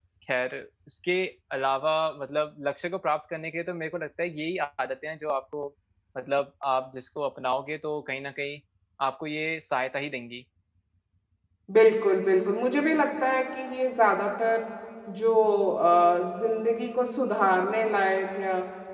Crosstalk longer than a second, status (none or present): none